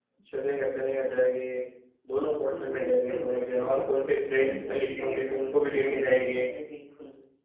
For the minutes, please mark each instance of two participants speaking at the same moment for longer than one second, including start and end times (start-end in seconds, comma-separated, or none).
2.3-4.0, 4.4-6.5